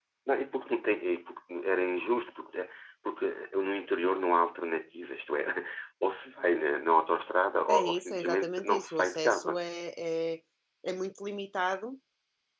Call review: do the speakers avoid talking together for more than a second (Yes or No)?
No